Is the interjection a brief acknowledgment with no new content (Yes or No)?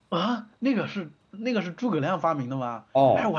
No